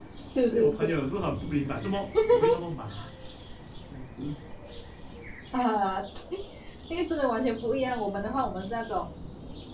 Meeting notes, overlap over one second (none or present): none